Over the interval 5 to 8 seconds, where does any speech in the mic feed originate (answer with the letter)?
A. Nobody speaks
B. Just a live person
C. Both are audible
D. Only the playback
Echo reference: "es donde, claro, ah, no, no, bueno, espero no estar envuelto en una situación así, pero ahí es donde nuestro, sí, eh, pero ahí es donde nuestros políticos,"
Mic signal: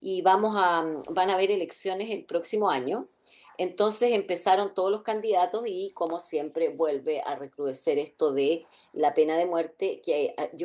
B